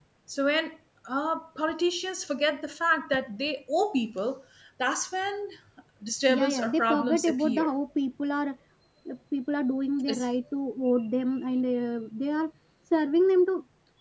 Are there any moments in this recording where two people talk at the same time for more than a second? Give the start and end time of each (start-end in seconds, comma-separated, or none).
6.4-7.7